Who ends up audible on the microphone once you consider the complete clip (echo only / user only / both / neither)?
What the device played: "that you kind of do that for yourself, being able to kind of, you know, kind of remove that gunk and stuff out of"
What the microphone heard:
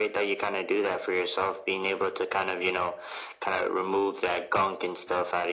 echo only